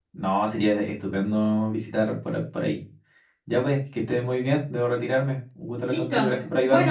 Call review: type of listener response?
taking over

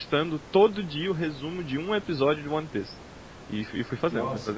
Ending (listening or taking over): listening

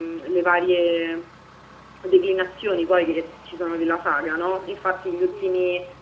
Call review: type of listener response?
listening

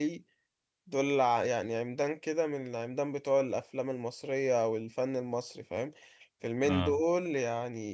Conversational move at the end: listening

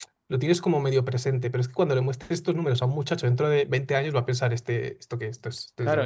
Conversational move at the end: taking over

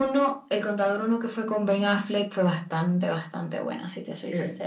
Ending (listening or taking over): taking over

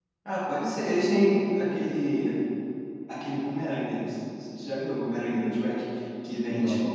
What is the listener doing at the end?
listening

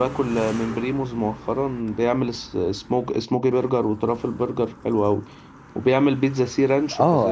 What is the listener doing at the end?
taking over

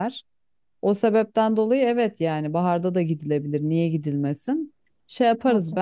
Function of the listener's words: listening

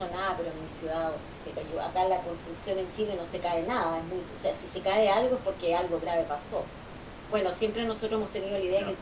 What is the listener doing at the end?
listening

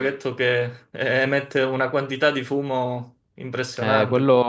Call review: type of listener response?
taking over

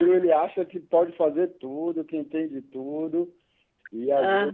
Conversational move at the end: listening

